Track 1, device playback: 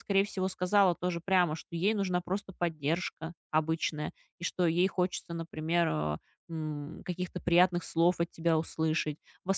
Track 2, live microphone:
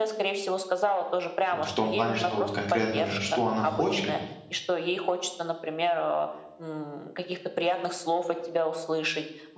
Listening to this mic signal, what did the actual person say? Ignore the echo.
вот в том плане, что вот конкретно, что она хочет

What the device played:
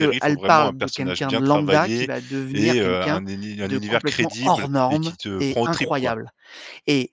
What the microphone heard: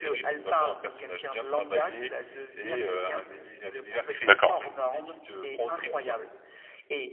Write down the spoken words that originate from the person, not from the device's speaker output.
d'accord.

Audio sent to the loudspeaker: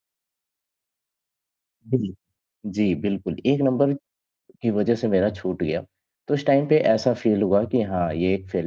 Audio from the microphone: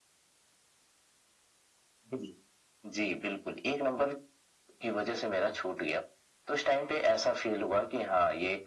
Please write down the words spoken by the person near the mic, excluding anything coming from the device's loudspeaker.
none

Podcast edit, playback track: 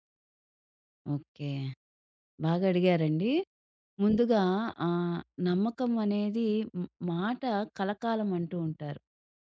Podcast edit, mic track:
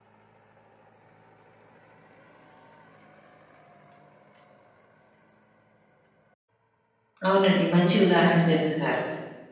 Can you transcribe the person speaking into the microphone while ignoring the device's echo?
అవునండి. మంచి ఉదాహరణలు చెప్తున్నారు.

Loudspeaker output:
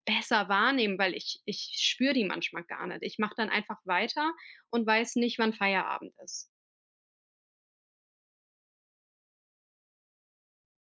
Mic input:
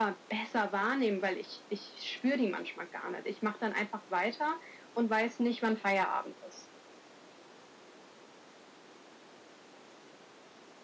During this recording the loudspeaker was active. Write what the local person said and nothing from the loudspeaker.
none

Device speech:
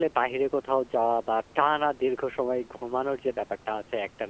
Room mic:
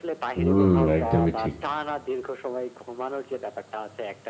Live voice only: হুম, একদমই ঠিক।

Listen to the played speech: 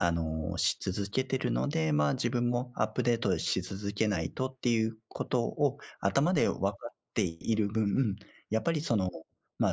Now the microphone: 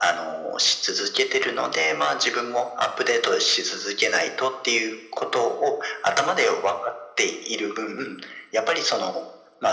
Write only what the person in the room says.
none

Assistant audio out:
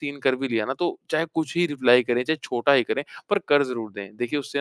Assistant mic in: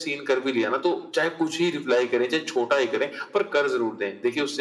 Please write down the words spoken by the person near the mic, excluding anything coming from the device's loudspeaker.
none

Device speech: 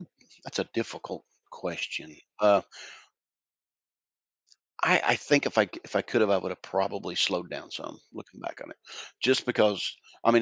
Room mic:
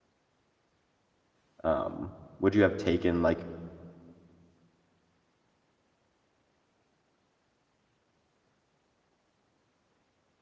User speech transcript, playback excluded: um, would you have taken, like

